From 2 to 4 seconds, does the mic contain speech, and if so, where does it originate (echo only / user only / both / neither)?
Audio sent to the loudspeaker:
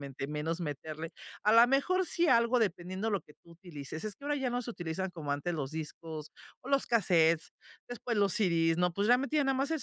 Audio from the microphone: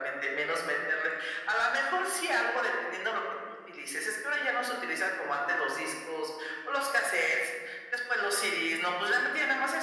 echo only